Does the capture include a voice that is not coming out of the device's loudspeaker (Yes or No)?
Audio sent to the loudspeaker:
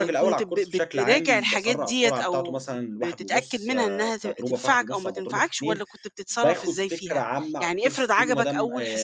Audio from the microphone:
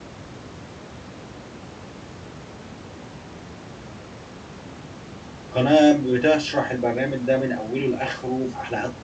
Yes